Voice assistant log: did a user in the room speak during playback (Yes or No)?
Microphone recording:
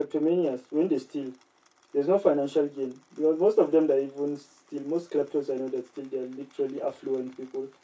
No